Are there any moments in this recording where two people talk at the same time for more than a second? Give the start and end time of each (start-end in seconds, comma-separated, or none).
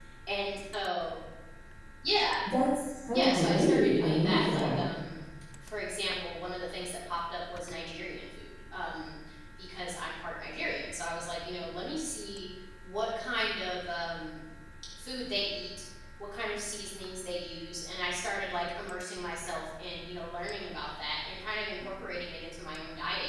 3.1-4.8